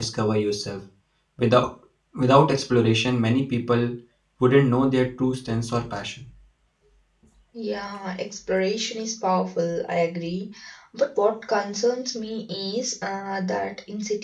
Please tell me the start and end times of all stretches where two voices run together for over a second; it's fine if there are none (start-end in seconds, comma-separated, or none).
none